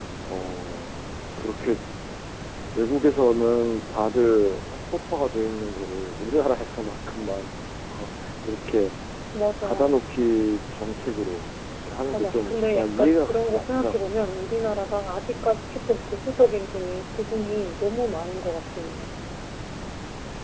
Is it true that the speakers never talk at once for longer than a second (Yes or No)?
No